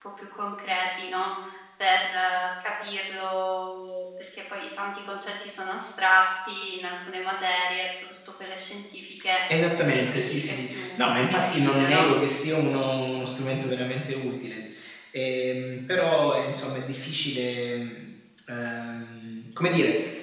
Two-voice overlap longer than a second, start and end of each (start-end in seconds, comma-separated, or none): 10.1-12.1